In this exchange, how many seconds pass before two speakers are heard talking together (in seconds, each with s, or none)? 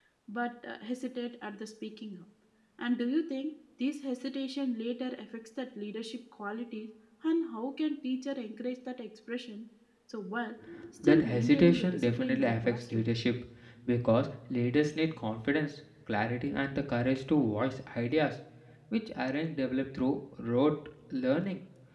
11.0 s